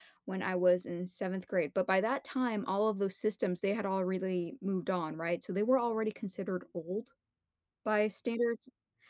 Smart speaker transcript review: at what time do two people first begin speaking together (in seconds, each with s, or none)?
none